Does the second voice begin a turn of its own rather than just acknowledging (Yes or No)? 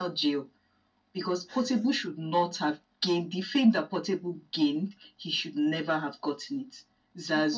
No